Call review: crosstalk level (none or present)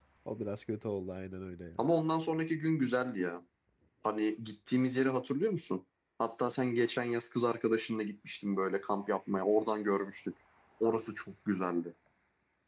none